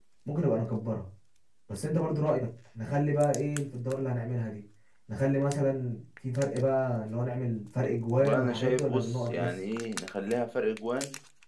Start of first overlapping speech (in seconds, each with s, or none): 8.1 s